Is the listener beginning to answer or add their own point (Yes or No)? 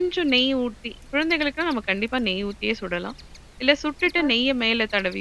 No